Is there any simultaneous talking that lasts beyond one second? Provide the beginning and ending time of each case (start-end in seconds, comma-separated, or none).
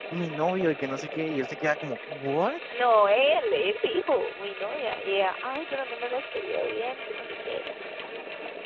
none